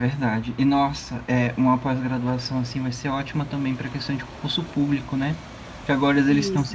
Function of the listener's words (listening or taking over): listening